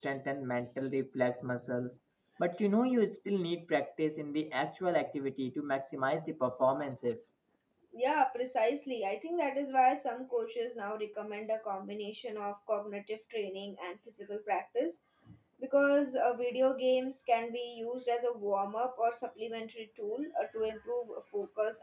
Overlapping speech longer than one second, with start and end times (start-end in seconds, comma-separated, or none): none